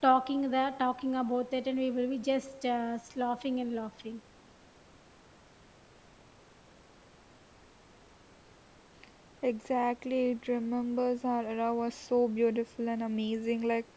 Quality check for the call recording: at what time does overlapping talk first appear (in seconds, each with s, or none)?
none